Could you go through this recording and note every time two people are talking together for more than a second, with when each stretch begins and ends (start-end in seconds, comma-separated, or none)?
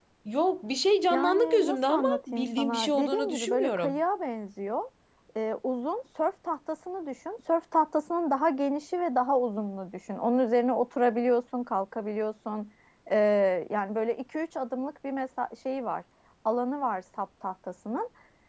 1.1-4.0